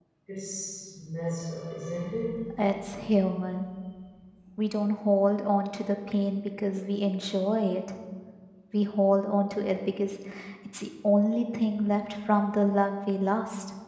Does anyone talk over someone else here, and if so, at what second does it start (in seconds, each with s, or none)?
none